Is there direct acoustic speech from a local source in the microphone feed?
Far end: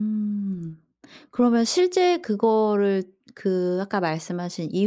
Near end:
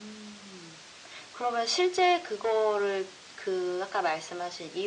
No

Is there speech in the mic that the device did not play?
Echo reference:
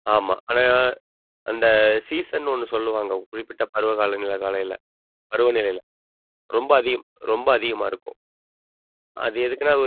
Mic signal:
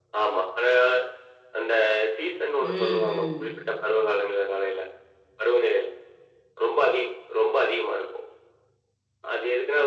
Yes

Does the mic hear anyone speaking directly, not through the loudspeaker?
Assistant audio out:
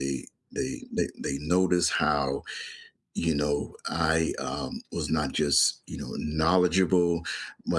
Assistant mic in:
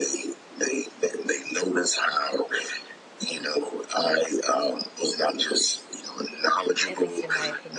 Yes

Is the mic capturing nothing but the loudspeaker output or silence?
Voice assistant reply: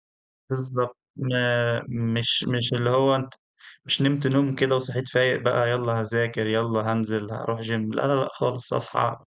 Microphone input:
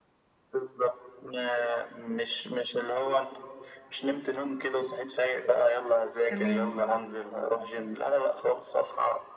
No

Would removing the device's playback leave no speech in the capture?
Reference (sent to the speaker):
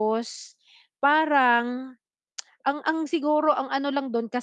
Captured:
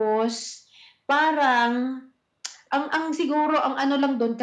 Yes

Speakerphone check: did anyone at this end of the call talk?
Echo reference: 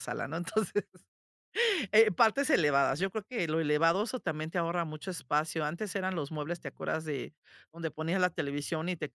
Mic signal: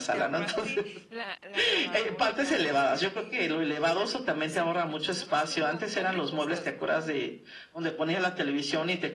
Yes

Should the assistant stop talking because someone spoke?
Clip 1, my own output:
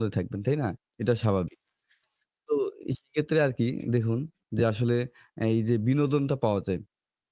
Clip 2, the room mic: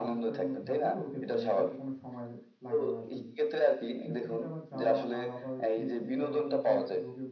Yes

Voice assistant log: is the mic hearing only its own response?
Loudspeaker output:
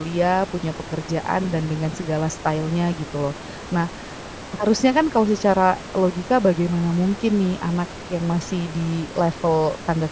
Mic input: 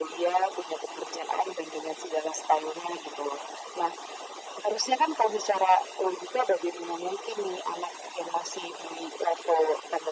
Yes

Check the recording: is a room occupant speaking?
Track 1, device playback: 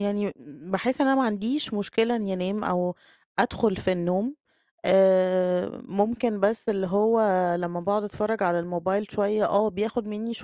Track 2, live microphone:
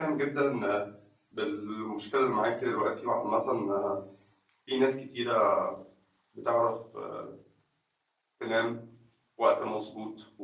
Yes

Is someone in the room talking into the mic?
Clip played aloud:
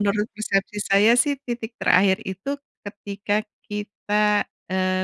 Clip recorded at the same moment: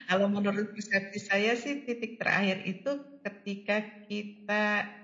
No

